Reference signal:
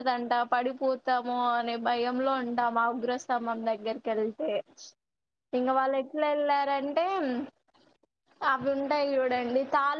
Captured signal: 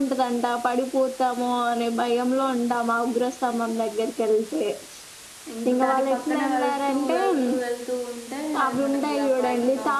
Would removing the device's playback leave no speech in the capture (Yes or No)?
No